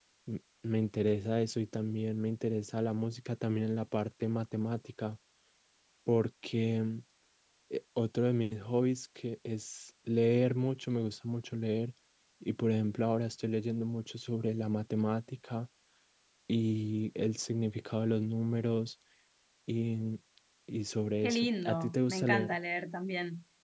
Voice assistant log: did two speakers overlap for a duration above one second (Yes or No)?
Yes